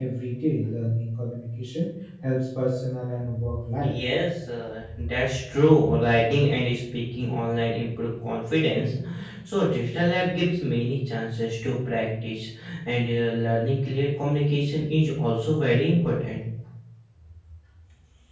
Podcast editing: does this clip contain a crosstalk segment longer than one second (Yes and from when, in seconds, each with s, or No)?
No